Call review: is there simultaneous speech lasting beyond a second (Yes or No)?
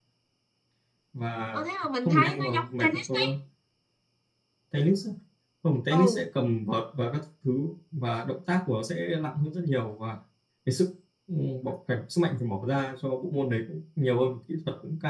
Yes